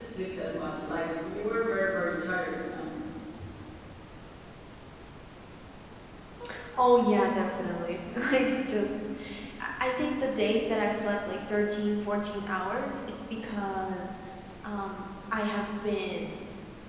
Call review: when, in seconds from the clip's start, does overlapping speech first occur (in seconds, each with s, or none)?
none